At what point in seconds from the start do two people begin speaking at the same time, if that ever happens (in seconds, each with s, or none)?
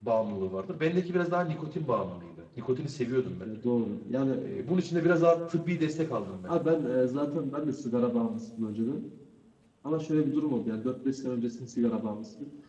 none